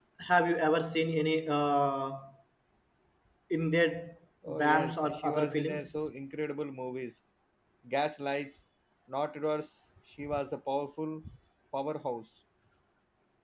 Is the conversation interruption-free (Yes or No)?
No